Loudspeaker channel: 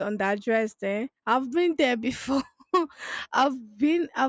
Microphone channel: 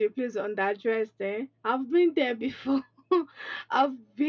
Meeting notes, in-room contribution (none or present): none